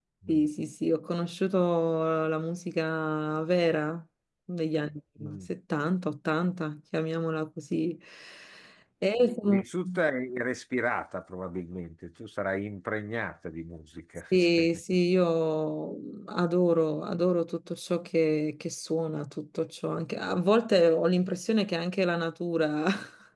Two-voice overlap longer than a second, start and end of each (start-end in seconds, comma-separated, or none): none